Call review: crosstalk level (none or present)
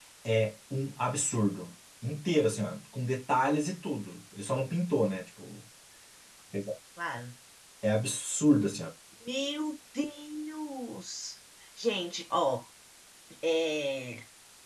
none